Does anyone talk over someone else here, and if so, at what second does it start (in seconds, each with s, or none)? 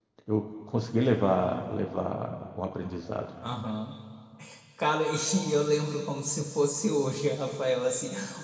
none